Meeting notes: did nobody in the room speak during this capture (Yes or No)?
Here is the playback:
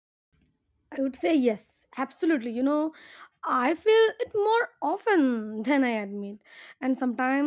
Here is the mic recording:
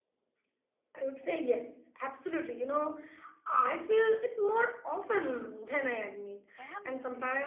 No